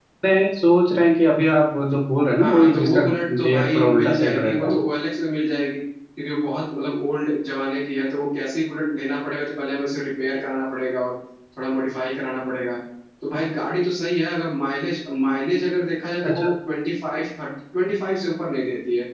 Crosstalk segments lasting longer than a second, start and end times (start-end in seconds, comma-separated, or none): 2.4-4.7